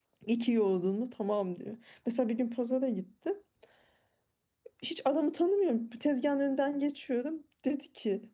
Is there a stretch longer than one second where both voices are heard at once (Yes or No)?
No